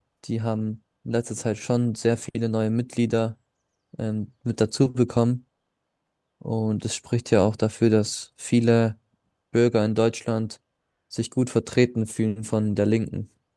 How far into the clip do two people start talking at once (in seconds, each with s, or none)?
none